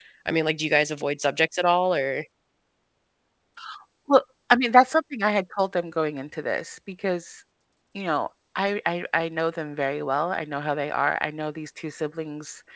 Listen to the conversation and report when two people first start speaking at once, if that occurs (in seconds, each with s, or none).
none